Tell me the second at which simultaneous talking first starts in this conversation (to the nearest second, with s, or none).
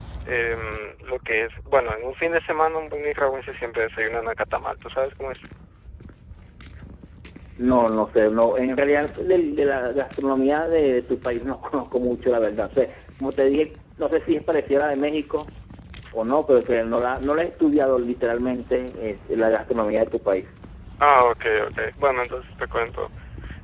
none